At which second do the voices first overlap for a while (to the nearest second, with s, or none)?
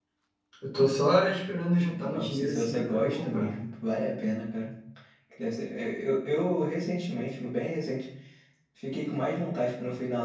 2 s